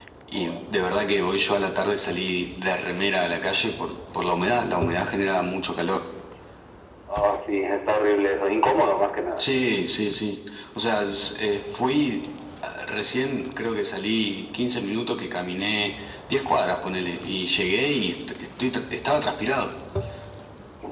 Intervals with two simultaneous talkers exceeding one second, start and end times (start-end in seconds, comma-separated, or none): none